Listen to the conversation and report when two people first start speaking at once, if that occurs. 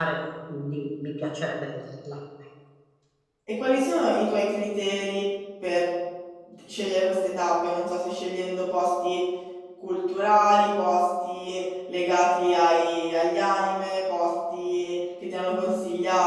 none

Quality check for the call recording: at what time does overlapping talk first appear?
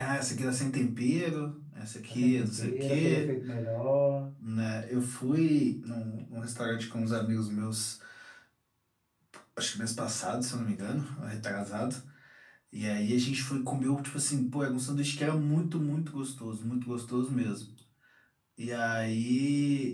2.1 s

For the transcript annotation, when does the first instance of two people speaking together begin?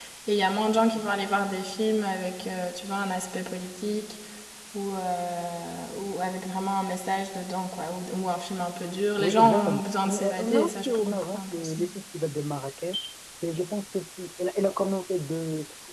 9.2 s

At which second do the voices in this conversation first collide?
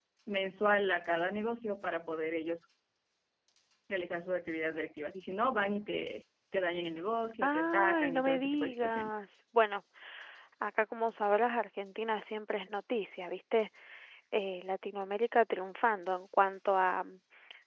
7.4 s

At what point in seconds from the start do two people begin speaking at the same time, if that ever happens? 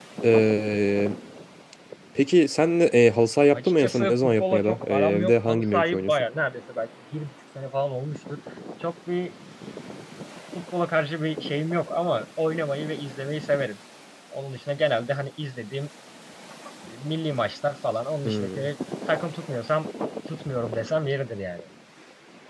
3.5 s

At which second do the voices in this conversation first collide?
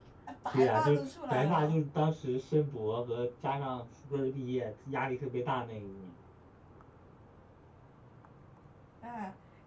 0.5 s

